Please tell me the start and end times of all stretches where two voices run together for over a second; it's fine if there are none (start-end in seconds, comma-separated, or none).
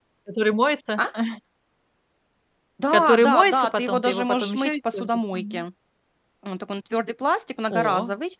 2.9-5.6